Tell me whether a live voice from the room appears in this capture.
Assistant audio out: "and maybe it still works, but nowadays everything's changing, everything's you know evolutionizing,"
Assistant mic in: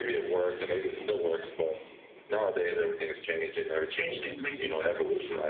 Yes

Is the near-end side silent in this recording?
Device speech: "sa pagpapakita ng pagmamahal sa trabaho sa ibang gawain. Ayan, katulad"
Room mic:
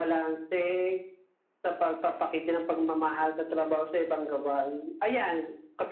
Yes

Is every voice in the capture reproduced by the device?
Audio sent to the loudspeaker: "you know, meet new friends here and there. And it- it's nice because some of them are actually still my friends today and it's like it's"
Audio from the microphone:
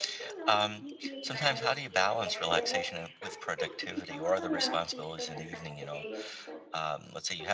No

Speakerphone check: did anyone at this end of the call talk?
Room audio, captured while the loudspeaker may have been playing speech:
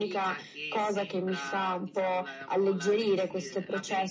Yes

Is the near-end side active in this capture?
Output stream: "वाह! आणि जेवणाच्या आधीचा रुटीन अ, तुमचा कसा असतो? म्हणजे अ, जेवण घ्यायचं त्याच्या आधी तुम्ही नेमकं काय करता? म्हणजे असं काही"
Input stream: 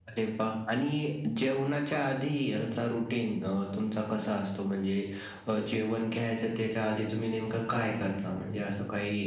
No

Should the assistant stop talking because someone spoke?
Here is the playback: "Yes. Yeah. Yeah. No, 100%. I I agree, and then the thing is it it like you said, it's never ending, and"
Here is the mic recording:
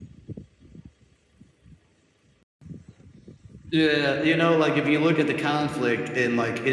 Yes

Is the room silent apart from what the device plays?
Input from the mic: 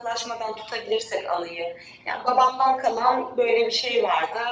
Yes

